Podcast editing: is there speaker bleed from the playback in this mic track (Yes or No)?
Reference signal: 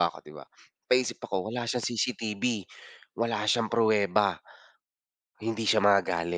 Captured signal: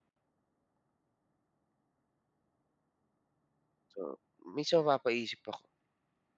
No